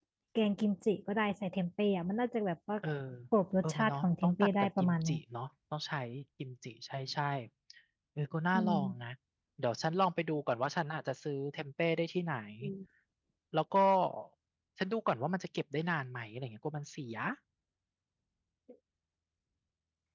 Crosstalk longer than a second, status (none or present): present